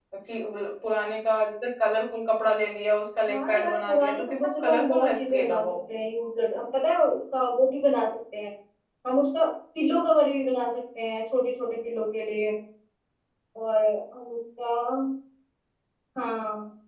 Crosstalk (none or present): present